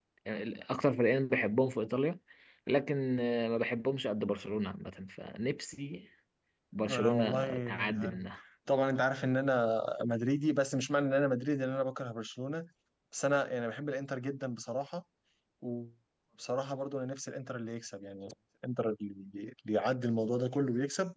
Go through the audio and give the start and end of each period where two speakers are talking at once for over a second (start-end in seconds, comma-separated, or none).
6.9-8.2